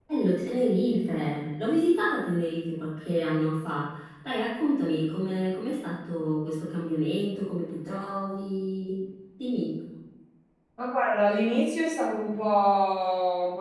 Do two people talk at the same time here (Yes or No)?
No